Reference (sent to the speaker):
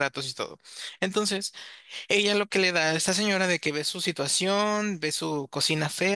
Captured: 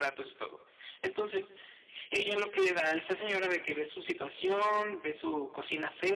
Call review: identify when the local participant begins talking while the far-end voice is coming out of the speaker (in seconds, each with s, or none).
none